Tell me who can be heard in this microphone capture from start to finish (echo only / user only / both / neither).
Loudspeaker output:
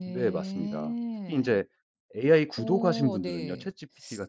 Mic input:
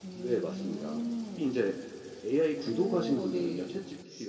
echo only